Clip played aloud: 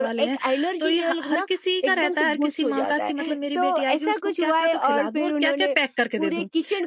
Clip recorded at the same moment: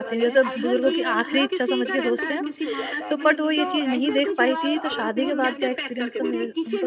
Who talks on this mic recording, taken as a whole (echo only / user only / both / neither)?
both